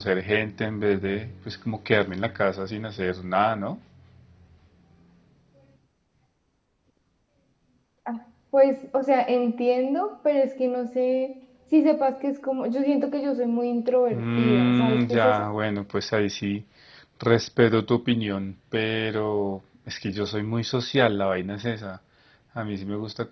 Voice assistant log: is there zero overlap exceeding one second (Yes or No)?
No